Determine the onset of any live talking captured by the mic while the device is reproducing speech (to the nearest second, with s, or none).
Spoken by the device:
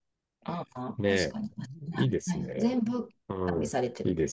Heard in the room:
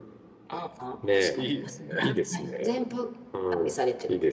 1 s